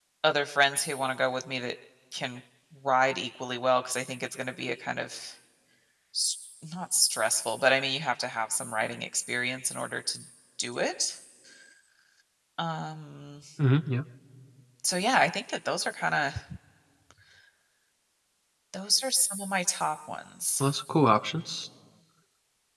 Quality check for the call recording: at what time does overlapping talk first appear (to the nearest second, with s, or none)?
none